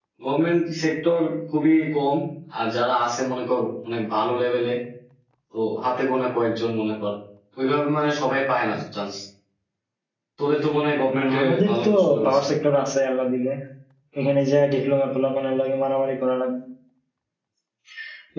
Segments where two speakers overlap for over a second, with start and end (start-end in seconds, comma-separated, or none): 11.2-12.4